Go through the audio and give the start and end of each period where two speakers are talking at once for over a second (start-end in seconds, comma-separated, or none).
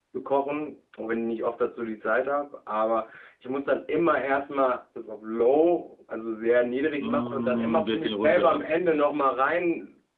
7.0-8.6